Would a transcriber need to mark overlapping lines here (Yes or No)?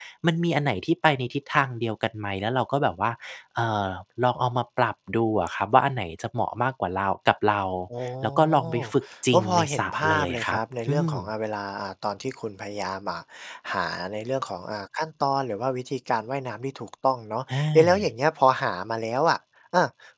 Yes